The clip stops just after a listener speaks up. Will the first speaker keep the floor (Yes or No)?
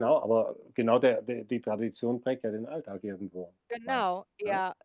No